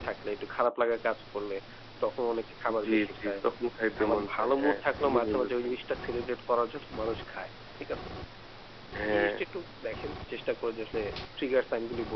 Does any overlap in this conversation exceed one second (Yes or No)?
Yes